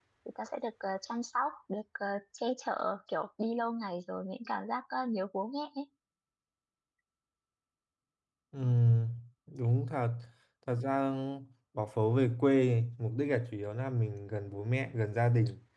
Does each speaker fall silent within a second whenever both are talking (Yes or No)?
Yes